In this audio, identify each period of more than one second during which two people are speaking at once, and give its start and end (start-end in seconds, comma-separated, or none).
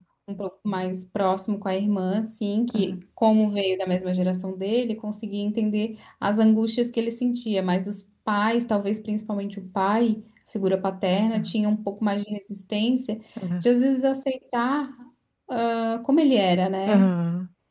none